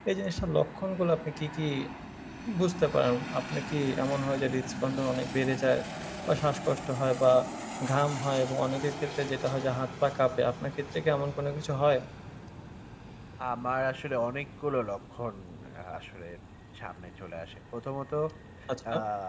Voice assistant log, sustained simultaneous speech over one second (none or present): none